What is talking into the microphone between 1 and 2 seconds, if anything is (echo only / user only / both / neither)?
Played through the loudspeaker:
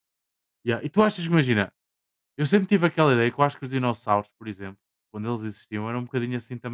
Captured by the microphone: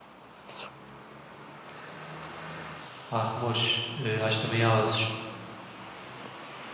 neither